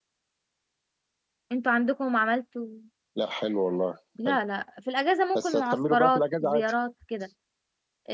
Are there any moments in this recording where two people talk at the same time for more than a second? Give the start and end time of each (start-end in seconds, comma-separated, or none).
5.4-6.7